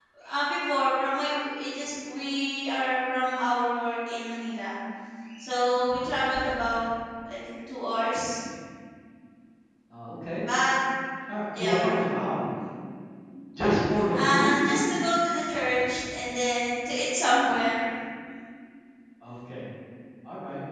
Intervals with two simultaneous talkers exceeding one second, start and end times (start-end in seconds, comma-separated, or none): none